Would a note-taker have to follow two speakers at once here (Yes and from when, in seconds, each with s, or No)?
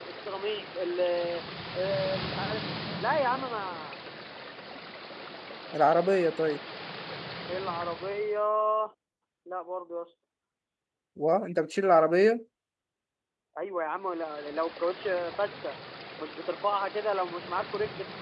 No